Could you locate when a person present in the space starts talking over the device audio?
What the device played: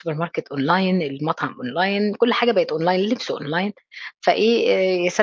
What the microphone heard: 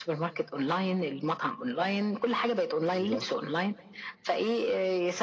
3 s

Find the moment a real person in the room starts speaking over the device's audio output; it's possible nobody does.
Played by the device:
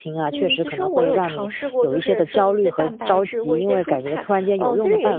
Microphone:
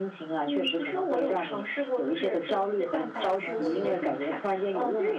3 s

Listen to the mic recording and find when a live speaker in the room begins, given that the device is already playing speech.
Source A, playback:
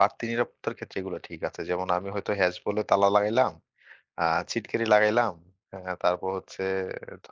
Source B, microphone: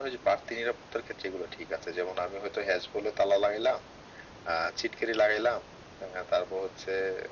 none

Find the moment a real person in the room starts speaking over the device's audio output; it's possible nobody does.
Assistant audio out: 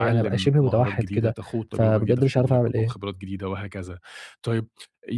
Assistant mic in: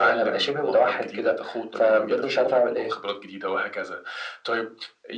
none

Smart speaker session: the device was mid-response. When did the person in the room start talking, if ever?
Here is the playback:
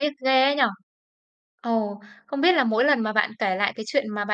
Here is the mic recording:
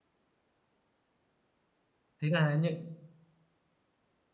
2 s

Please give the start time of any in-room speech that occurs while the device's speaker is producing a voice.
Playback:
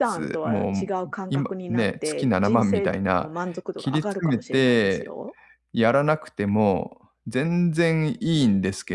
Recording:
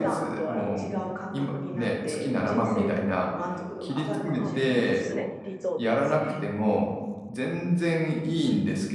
4 s

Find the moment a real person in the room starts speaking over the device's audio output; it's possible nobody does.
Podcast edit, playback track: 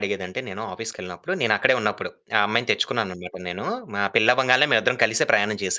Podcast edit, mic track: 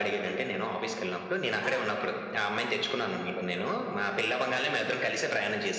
2 s

